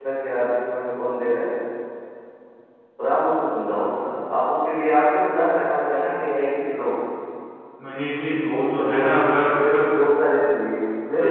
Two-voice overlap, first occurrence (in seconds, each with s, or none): 8.4 s